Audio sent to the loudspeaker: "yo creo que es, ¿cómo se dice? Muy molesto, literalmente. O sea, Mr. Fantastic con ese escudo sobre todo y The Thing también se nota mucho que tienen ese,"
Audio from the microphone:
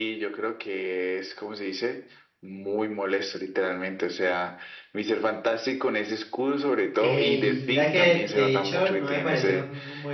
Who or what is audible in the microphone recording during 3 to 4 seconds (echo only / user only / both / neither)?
echo only